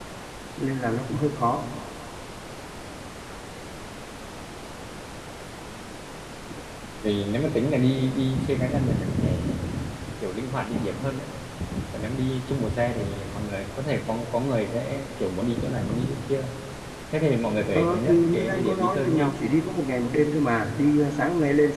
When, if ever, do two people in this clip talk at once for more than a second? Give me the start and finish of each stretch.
17.8-19.4

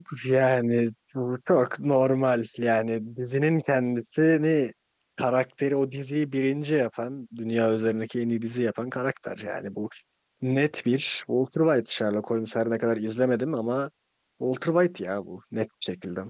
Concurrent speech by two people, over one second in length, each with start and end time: none

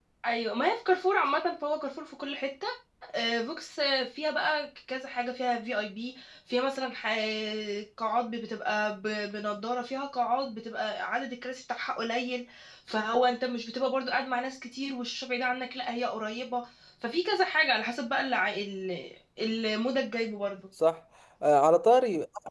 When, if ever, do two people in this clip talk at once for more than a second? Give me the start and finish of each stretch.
none

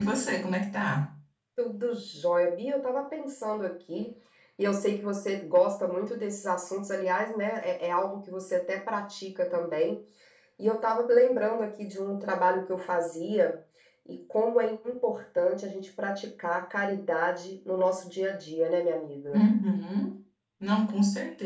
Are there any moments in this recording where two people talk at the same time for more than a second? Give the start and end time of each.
none

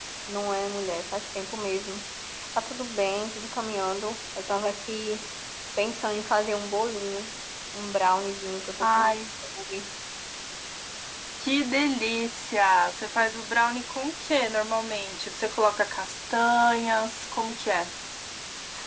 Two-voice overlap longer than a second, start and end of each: none

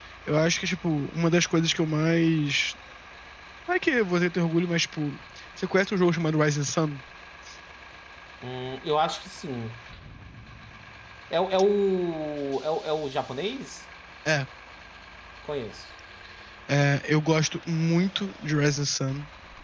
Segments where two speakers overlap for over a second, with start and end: none

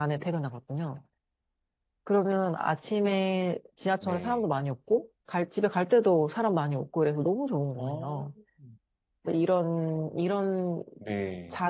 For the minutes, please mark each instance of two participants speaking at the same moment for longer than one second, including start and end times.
none

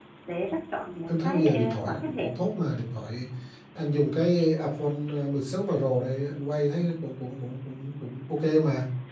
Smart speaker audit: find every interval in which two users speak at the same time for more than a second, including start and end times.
1.1-2.3

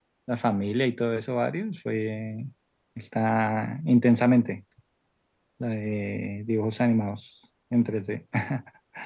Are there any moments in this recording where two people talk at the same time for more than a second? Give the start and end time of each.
none

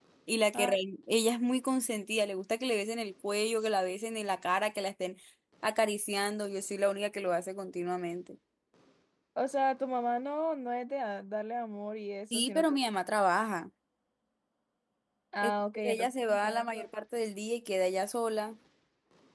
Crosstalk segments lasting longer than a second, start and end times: 15.4-16.9

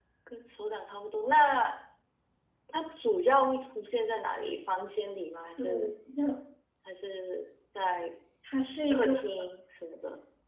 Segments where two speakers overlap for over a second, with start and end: none

